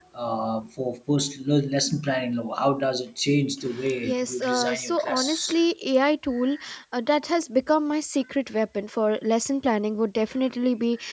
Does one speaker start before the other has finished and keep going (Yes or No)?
Yes